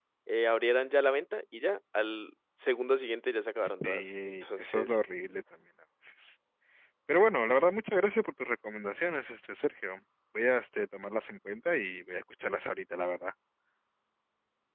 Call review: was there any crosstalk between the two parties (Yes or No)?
Yes